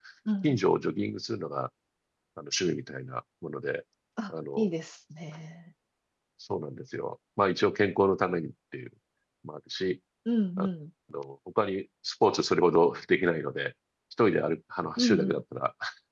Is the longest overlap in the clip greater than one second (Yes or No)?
No